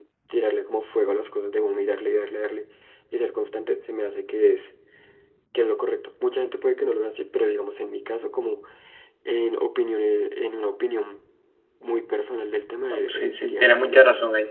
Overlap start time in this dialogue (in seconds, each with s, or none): 12.9 s